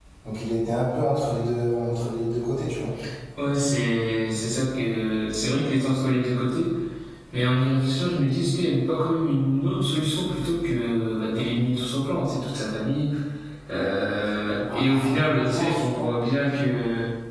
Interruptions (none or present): present